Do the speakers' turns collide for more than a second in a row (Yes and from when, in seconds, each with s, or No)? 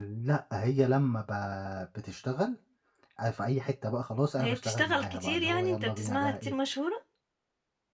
Yes, from 4.4 s